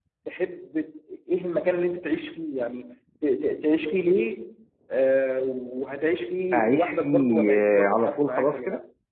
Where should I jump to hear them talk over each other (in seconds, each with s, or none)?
6.5 s